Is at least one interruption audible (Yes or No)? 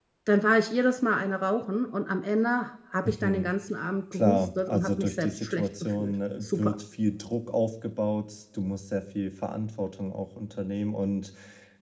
Yes